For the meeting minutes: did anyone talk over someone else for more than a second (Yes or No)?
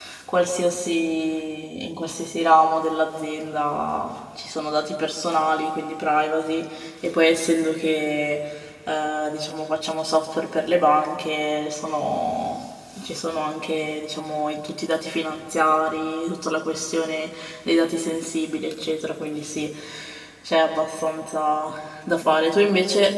No